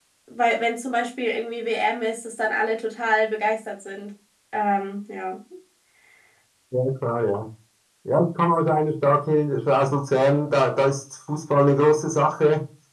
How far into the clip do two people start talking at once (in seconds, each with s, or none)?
none